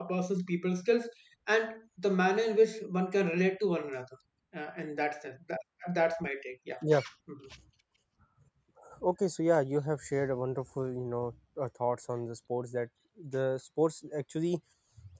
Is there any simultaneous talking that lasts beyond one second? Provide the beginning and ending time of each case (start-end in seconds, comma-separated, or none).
none